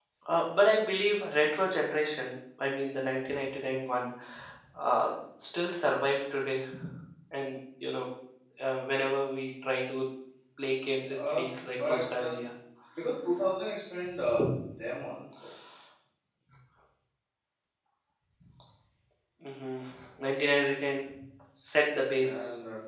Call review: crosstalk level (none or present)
present